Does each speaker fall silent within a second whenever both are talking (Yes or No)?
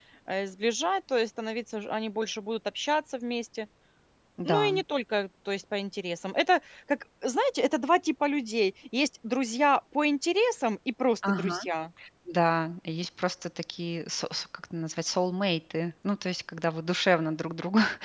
Yes